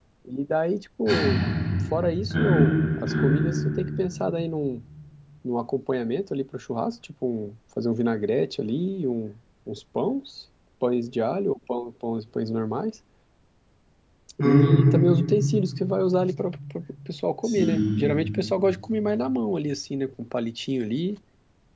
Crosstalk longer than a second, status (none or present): present